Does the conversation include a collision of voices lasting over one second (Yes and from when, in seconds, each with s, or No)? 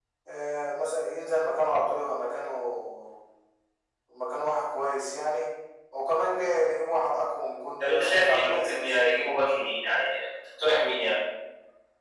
Yes, from 7.8 s